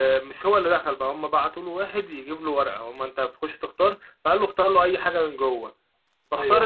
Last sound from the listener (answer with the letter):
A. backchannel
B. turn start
A